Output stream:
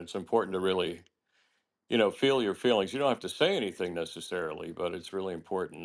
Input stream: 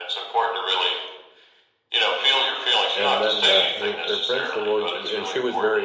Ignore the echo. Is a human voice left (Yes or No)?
Yes